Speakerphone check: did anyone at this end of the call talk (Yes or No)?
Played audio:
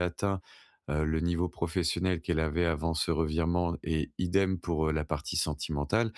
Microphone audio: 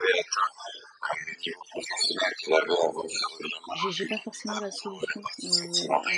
Yes